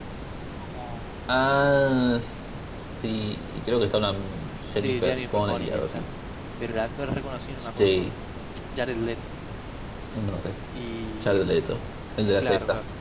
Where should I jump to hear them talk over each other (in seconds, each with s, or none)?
4.8 s